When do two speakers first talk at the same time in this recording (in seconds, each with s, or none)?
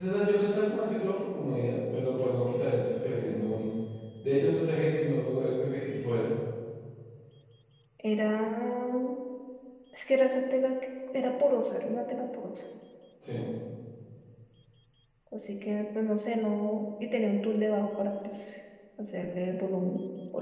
none